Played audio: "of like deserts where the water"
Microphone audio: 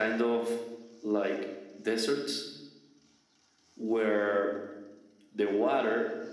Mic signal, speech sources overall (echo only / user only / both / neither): echo only